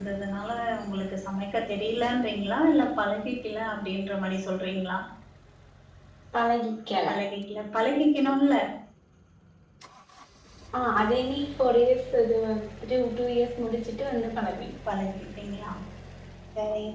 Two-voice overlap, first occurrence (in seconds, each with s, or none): none